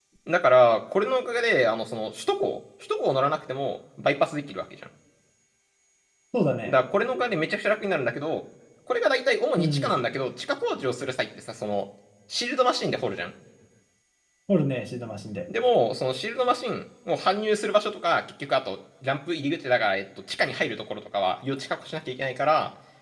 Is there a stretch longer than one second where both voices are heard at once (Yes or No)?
No